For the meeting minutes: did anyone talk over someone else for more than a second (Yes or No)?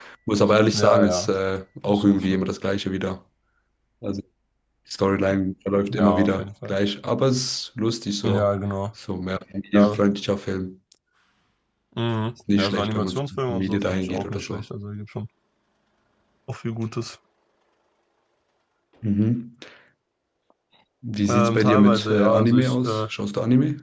Yes